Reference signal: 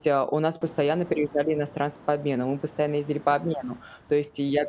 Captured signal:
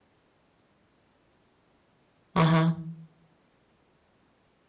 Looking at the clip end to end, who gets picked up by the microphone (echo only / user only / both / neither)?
user only